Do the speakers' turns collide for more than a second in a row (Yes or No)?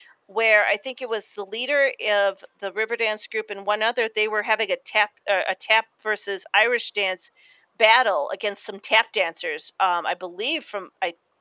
No